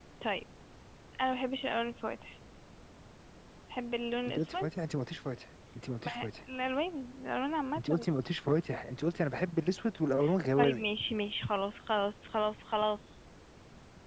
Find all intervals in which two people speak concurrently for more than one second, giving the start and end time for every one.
none

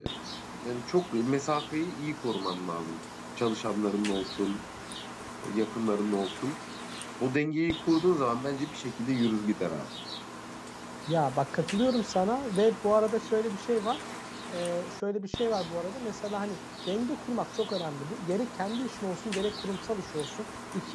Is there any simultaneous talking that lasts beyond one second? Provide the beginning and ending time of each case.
none

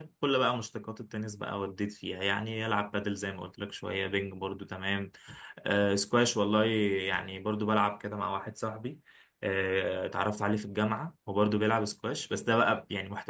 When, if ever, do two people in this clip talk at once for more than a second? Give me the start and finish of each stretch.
none

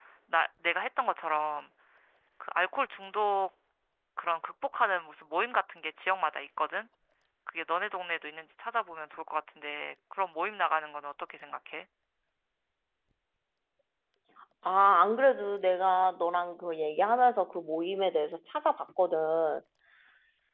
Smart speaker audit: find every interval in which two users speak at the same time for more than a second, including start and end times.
none

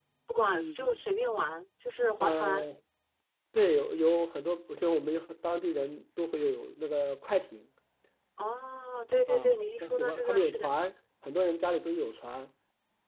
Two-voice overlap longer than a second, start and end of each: 9.3-10.7

